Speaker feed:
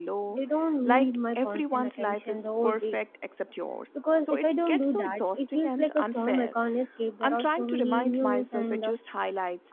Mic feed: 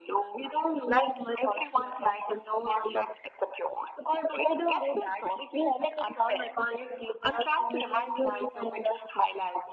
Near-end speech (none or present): none